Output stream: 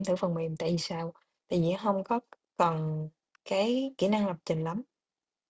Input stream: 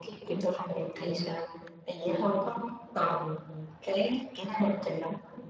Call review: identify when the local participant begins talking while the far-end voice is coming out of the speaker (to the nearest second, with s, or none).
none